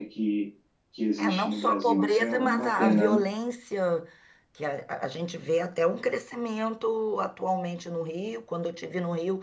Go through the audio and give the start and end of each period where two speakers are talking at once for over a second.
1.2-3.2

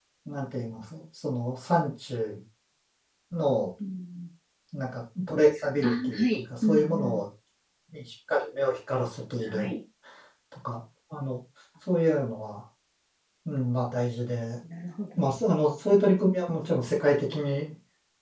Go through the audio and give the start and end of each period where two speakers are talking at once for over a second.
5.8-7.2

